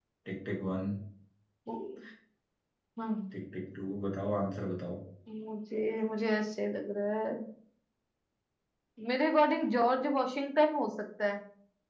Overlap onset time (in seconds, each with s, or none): none